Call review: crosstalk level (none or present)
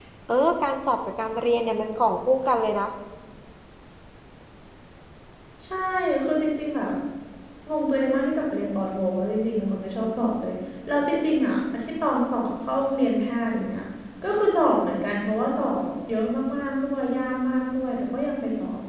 none